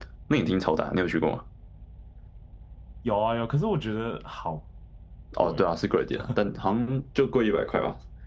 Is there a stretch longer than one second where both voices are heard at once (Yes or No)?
No